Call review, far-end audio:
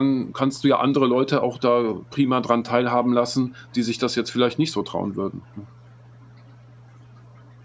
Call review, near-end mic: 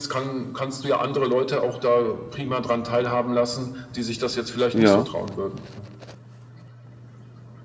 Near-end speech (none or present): present